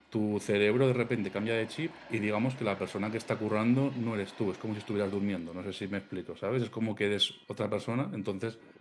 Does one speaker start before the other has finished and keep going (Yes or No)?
No